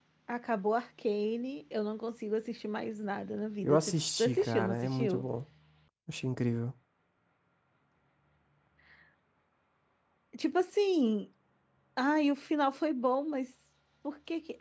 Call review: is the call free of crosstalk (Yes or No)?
No